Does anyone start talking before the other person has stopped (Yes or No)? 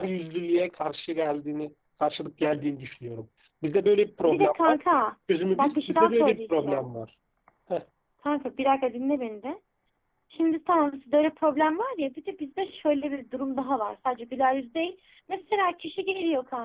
Yes